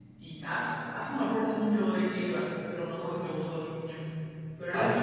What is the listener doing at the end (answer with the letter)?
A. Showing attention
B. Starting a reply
B